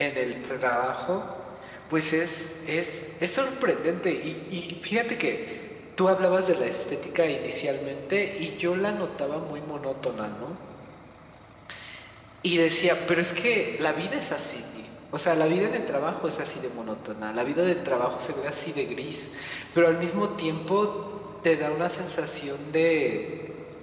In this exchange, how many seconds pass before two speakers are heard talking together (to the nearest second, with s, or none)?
none